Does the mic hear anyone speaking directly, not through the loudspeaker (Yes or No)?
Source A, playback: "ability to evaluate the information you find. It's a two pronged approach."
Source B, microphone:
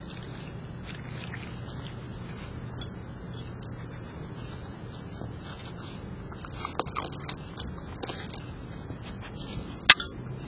No